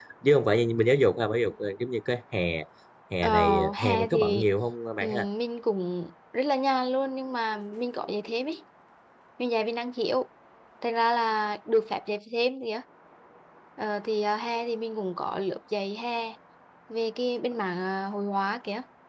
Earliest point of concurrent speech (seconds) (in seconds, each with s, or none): 3.2 s